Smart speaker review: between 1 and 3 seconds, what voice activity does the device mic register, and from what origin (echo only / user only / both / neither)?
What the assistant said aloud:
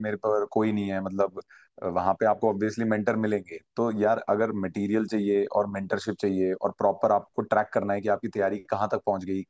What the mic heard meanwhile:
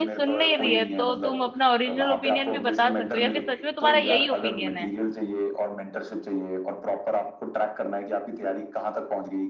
both